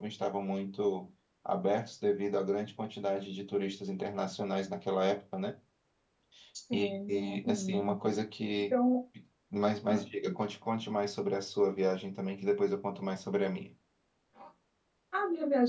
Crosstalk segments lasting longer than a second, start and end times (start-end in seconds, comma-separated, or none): 6.7-7.9